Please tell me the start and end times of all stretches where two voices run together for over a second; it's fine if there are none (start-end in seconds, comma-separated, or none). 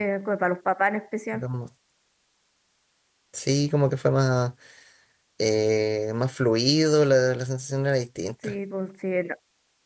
none